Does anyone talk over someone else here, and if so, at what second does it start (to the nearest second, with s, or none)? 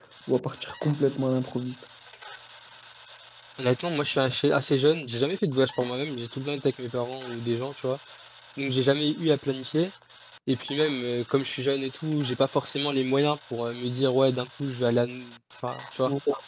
none